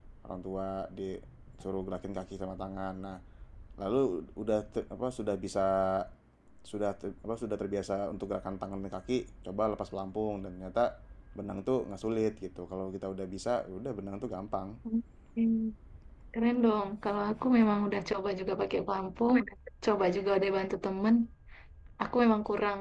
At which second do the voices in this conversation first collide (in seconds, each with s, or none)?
none